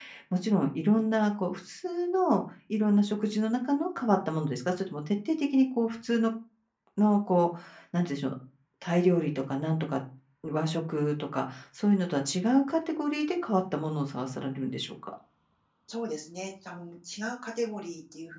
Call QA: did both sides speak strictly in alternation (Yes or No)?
Yes